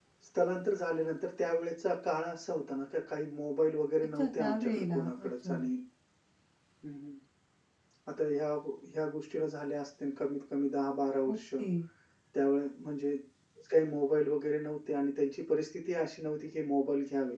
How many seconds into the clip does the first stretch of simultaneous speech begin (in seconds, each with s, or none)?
4.2 s